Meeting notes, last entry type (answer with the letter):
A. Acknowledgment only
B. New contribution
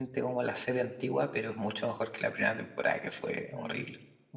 B